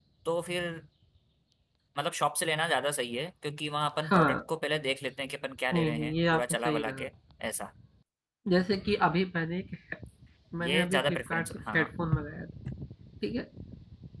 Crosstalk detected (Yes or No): Yes